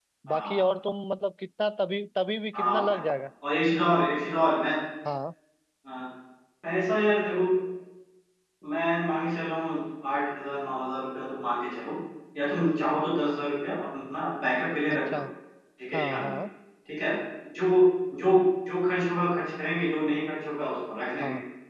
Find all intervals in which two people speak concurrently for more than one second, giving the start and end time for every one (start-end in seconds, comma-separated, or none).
none